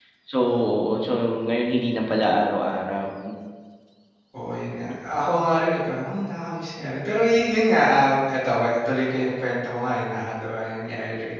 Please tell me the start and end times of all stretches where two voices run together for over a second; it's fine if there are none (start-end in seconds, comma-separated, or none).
none